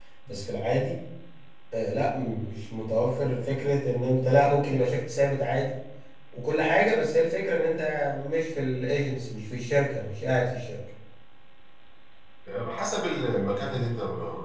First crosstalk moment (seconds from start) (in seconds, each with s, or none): none